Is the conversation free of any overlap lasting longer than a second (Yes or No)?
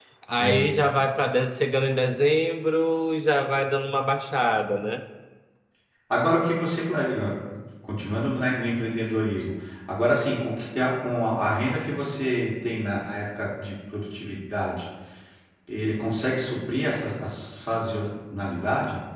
Yes